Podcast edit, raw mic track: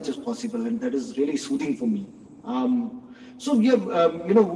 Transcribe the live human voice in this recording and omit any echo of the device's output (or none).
none